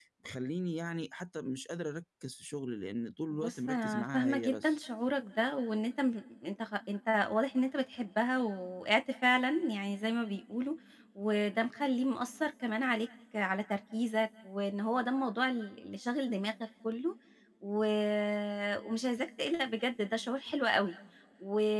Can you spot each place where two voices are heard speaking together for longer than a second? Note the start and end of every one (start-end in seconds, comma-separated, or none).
3.4-4.8